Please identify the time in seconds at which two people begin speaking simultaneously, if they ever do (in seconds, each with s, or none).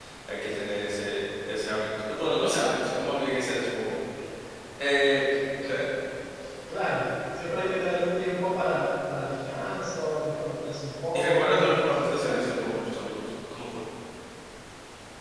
11.2 s